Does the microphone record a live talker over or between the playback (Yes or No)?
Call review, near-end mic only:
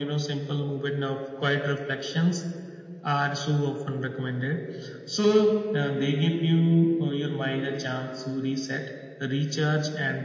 No